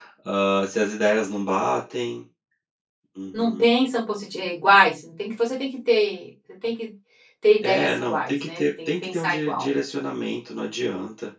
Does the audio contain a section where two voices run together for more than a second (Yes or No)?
Yes